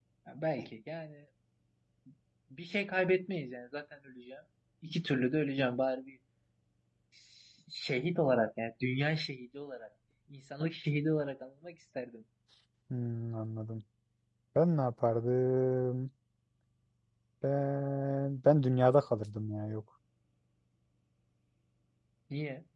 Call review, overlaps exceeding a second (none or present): none